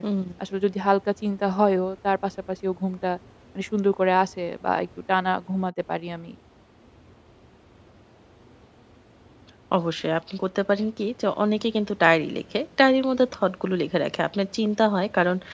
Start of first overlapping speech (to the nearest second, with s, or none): none